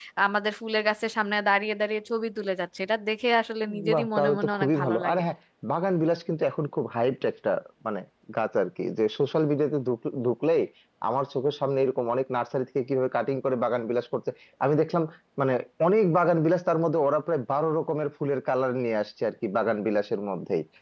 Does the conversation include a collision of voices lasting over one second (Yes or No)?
Yes